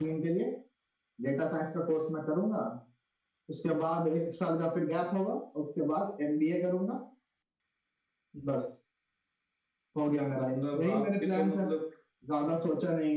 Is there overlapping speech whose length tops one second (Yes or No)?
Yes